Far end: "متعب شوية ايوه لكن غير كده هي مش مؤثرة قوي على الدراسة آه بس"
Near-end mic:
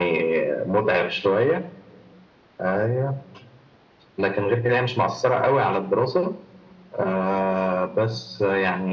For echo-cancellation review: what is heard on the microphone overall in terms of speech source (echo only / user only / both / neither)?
echo only